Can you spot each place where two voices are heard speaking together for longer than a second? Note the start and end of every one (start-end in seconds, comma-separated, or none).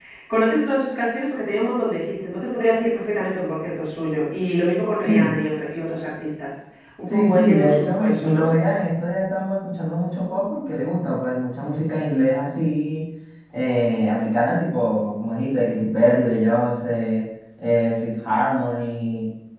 7.1-8.5